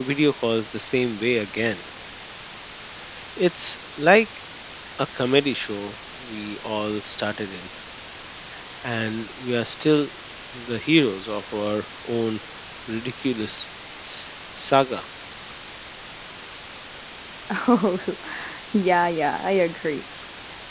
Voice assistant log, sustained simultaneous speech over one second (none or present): none